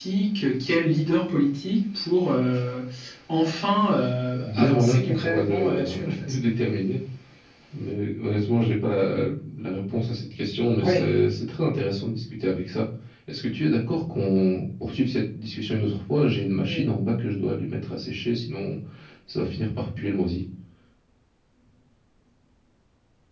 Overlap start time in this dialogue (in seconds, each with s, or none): 4.4 s